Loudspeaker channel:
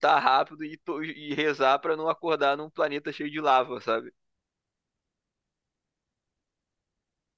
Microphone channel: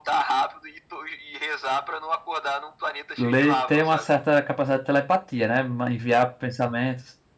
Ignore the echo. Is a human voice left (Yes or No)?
Yes